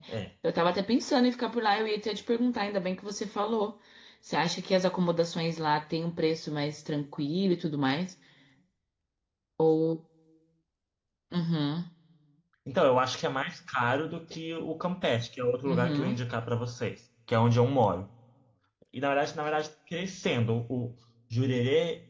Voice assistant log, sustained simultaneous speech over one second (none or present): none